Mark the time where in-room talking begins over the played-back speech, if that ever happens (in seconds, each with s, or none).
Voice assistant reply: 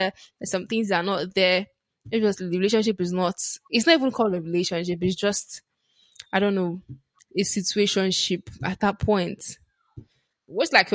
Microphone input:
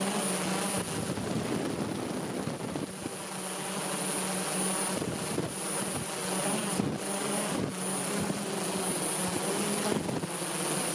none